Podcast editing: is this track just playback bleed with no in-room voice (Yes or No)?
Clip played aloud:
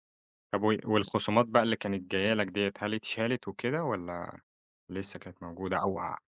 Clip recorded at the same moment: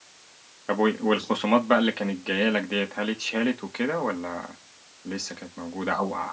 Yes